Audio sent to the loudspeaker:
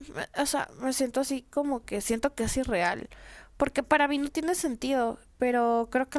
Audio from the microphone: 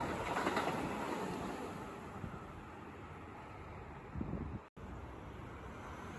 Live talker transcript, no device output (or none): none